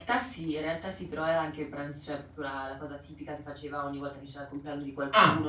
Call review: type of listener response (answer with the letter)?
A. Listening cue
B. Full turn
A